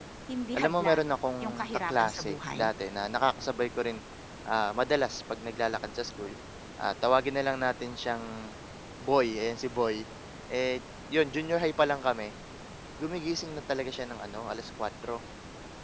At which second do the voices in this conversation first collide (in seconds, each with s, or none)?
0.6 s